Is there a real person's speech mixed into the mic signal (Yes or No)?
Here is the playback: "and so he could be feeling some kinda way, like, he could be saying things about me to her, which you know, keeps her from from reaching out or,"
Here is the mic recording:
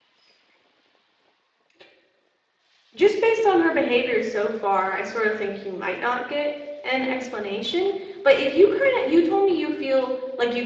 Yes